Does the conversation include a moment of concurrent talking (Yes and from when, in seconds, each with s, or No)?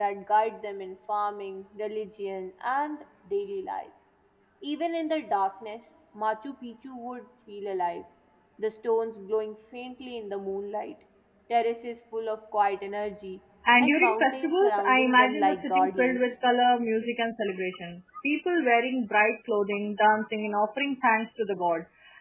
Yes, from 13.7 s